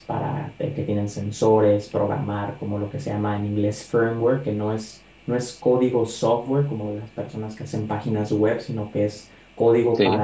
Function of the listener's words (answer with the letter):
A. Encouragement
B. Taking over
A